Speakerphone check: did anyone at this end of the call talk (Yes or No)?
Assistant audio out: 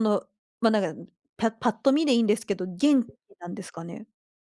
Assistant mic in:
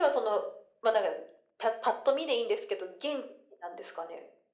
No